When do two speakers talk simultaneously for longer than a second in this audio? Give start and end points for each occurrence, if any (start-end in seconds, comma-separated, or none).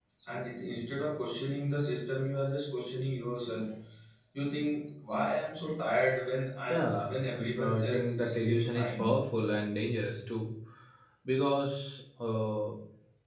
7.6-9.2